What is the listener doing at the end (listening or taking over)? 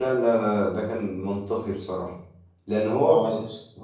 listening